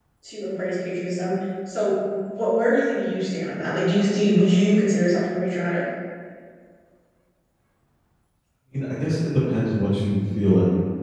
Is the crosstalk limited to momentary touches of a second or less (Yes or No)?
Yes